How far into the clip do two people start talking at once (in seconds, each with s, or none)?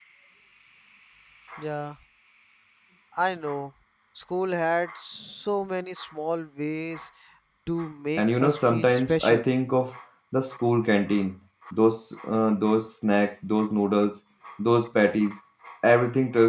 8.2 s